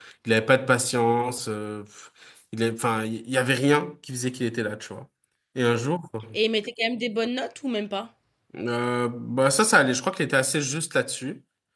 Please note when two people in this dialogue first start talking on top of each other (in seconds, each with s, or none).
none